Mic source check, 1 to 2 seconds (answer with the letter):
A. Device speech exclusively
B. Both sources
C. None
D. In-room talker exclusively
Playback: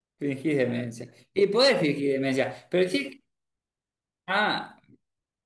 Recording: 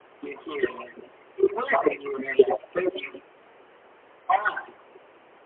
A